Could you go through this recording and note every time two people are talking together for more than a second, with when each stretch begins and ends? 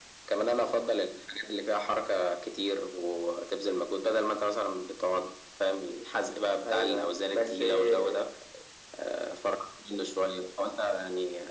6.6-8.3

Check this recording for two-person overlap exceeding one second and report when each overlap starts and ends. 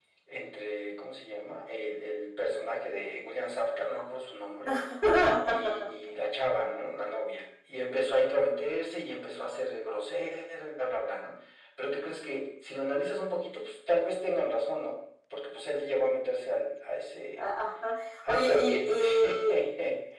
18.3-19.6

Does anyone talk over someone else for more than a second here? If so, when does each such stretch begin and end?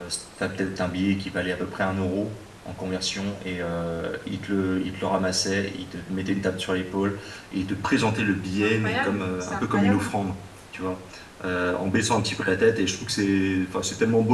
8.6-10.0

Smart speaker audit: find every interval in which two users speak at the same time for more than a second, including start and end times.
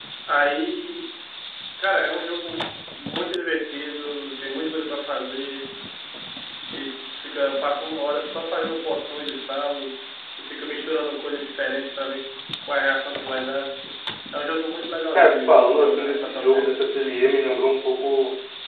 15.1-16.8

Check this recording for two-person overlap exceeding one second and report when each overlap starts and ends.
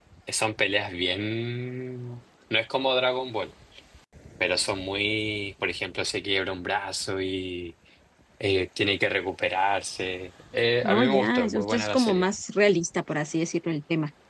10.8-12.3

